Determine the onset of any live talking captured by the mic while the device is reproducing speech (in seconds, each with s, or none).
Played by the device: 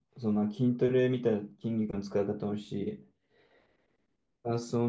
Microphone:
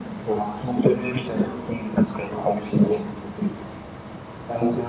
none